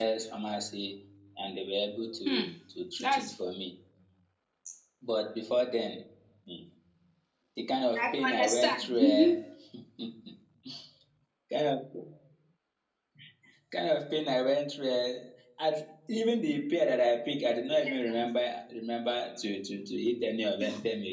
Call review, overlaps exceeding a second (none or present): present